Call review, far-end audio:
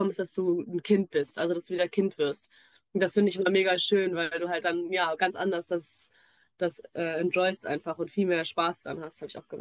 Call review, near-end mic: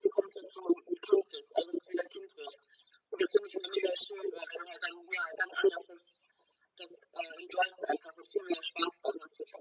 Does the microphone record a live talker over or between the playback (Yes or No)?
No